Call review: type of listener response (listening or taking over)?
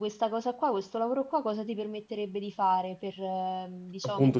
taking over